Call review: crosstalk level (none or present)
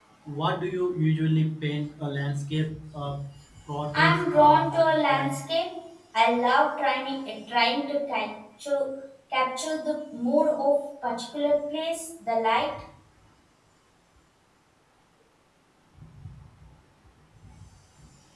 present